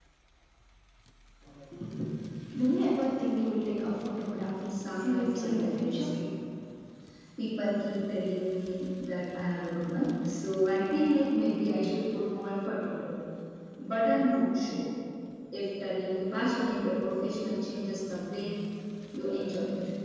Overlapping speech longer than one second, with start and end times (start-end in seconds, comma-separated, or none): 4.7-6.1